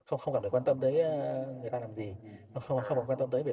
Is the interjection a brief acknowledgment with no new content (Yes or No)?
Yes